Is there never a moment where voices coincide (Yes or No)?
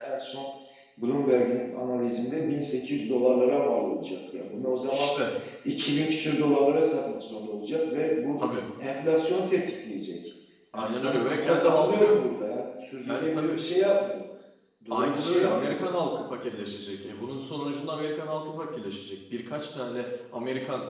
No